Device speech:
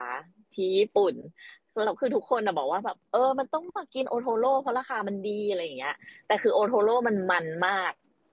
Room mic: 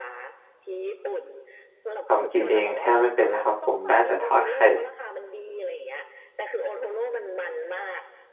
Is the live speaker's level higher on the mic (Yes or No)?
Yes